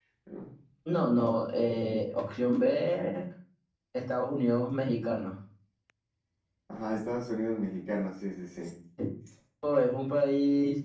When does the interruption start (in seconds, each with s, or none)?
none